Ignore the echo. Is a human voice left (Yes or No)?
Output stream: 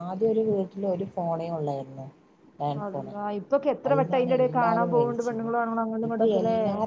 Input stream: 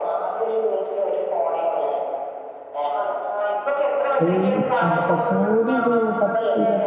Yes